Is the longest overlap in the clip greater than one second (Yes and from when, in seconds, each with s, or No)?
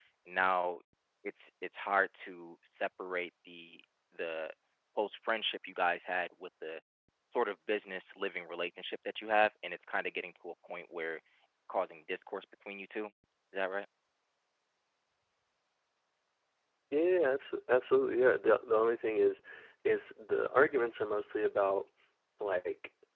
No